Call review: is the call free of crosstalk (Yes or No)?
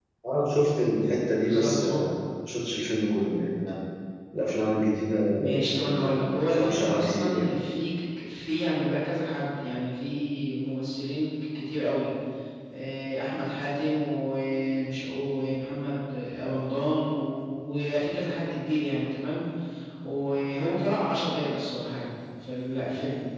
No